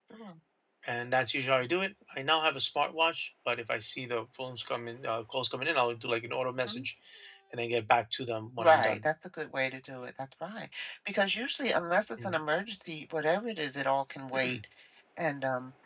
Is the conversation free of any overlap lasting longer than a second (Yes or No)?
Yes